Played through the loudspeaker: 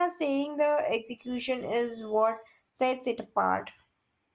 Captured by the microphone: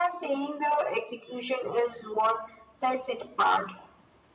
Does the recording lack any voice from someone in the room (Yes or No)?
Yes